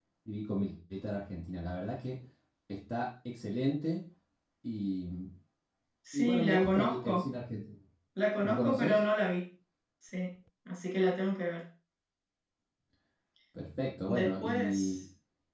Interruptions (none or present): present